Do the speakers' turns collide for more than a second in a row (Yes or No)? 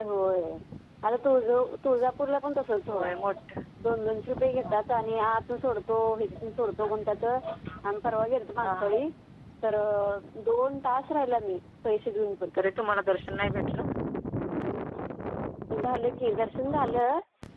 No